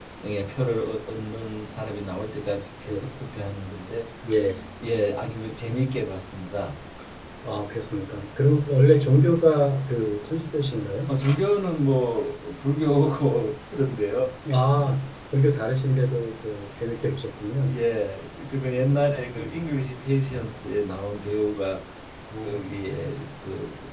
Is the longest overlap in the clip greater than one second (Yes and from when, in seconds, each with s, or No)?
No